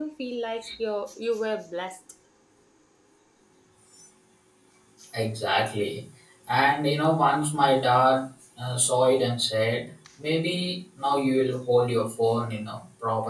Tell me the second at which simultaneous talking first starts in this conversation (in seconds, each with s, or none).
none